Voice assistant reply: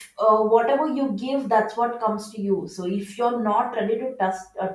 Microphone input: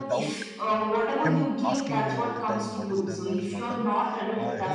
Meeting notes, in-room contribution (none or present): present